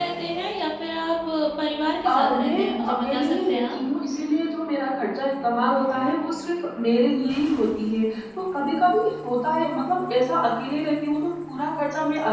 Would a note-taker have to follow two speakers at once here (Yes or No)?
Yes